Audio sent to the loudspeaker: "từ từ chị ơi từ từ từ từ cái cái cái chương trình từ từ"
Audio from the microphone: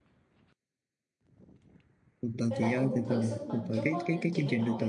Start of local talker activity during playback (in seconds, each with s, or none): 2.5 s